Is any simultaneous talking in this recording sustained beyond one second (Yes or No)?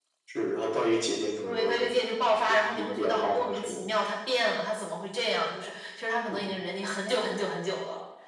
Yes